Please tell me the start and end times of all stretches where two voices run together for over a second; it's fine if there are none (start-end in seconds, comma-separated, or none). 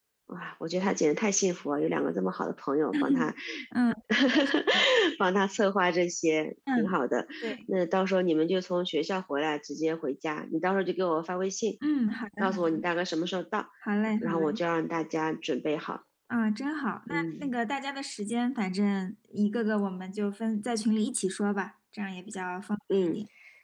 none